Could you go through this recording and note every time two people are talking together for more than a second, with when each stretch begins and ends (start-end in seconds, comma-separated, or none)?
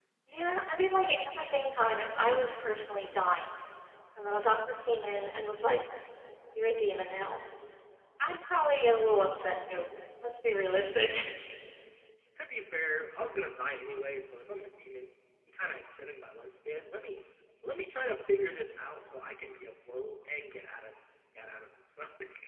none